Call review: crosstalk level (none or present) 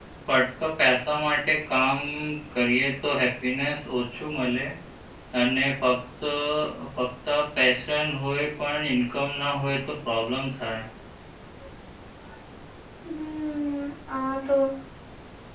none